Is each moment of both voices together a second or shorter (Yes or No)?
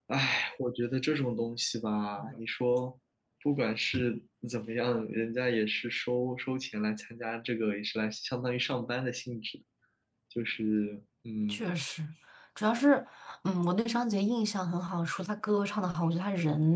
Yes